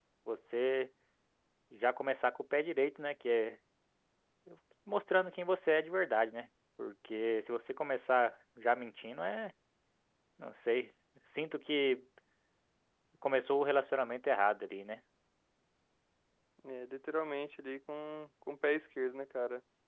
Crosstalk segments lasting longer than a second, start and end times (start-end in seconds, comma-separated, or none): none